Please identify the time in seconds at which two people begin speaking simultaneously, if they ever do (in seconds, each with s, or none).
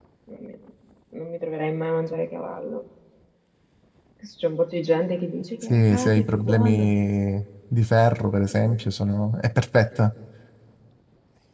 5.6 s